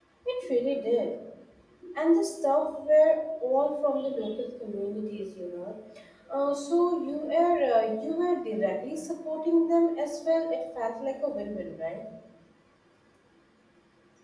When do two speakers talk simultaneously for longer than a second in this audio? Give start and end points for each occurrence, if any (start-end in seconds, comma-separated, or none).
none